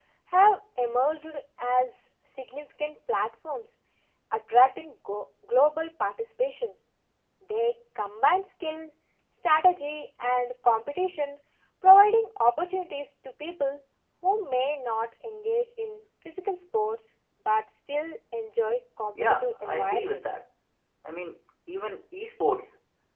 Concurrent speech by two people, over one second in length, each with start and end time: 19.2-20.4

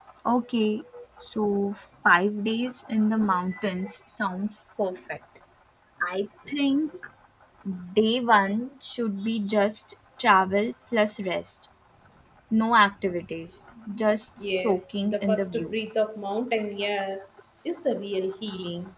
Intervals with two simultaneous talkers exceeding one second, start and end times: 14.5-15.7

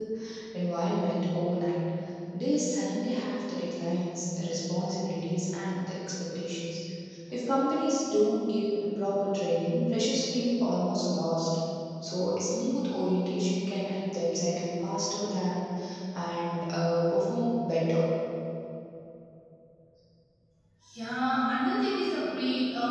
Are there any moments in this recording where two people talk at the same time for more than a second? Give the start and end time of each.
none

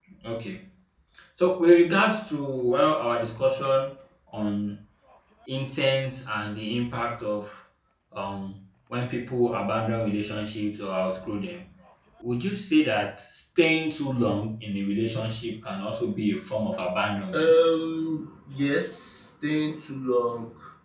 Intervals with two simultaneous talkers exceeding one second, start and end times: none

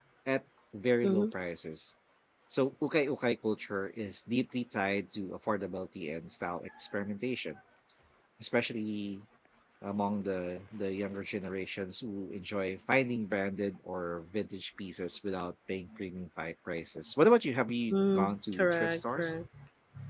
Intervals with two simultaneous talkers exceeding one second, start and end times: 17.9-19.3

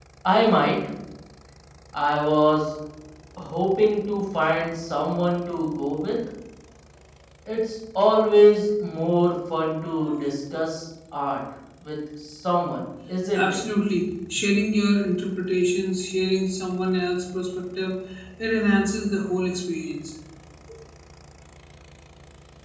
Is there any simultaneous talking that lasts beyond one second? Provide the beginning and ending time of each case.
none

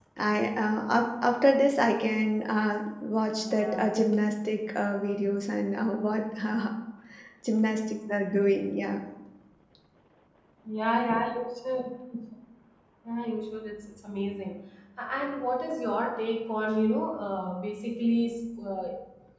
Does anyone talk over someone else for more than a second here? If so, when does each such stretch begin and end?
none

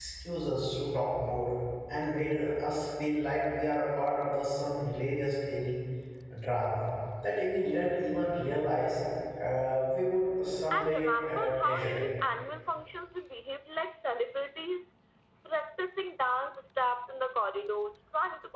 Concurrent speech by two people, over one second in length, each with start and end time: 10.7-12.0

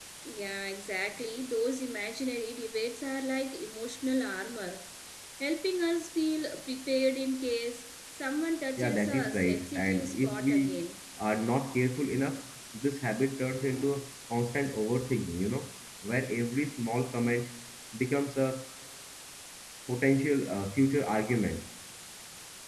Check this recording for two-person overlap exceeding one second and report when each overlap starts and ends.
8.8-10.8

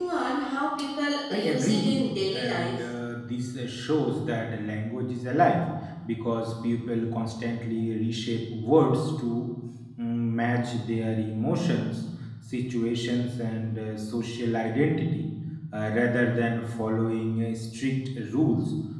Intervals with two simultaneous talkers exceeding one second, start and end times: 1.3-2.8

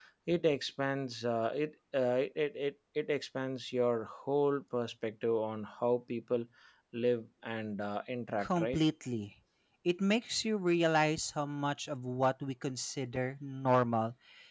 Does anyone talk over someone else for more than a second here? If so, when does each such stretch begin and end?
none

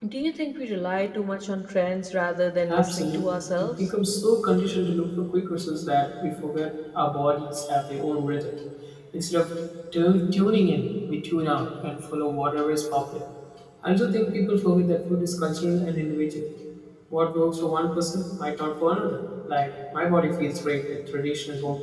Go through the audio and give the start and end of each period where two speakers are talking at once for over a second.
2.7-3.9

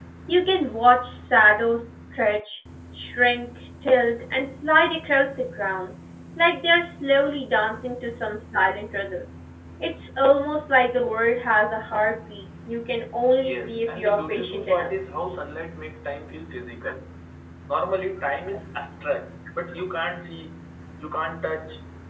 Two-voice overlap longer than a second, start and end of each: 13.4-14.9

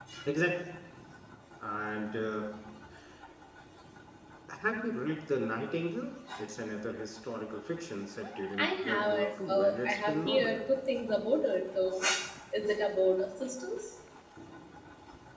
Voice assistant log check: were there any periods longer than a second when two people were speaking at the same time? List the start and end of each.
8.6-10.6

